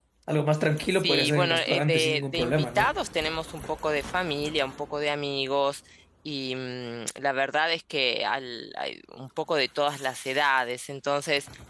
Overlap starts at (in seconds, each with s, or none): 0.9 s